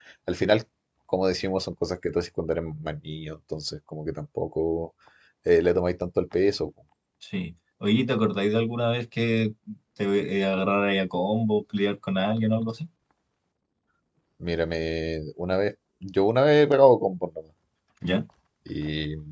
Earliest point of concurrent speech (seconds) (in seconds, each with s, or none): none